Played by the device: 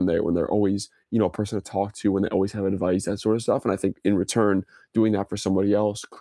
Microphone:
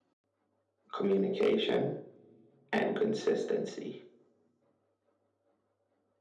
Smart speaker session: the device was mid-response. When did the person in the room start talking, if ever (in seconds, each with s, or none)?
0.9 s